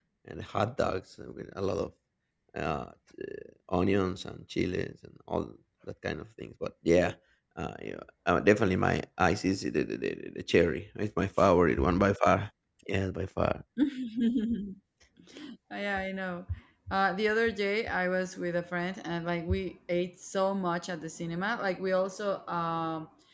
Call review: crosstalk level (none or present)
none